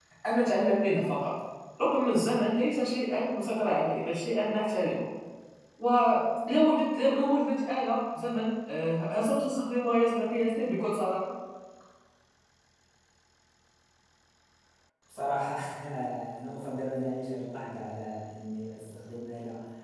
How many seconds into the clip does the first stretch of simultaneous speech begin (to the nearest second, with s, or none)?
none